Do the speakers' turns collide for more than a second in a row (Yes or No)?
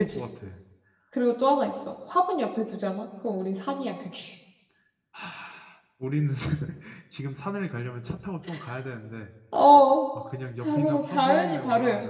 Yes